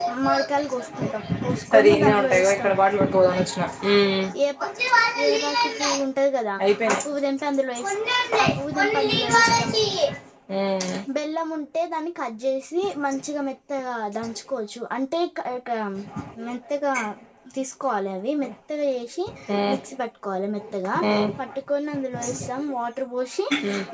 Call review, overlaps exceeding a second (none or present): present